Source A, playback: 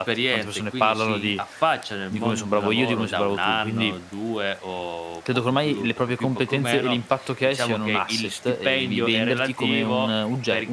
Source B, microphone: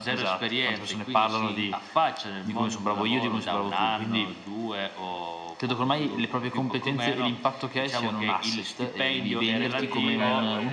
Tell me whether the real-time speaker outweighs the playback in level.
No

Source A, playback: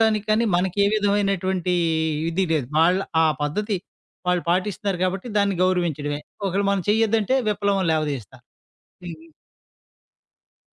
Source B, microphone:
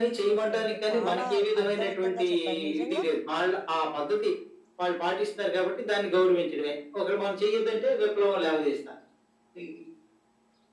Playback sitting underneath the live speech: No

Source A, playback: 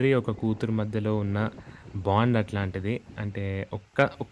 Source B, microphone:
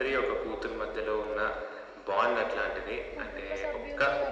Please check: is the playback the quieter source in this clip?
No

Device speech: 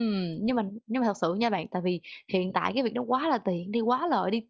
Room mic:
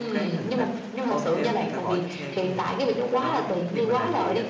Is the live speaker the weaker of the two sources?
Yes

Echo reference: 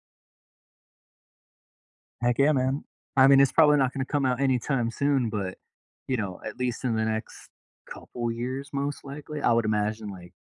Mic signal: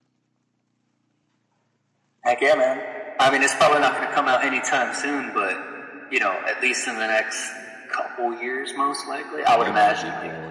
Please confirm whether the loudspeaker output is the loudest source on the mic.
Yes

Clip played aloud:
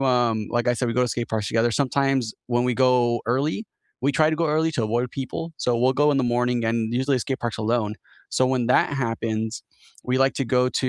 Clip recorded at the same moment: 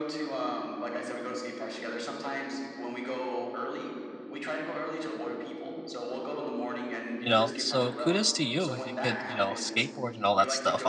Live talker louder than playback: Yes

